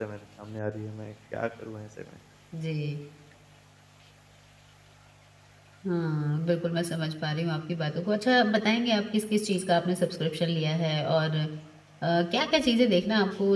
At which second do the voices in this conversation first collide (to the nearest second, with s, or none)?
none